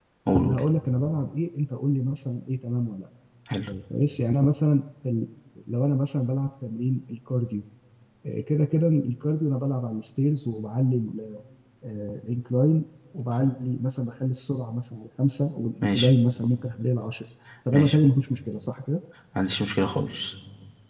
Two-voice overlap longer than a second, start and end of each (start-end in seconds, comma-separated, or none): none